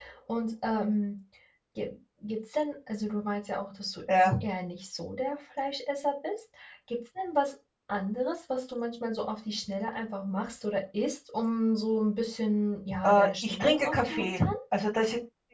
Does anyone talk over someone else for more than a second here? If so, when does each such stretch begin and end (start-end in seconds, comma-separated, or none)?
13.0-14.5